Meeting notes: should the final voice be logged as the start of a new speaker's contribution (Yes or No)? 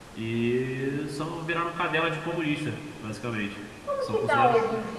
Yes